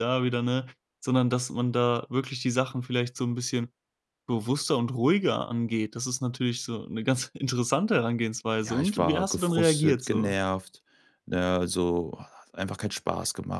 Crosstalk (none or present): present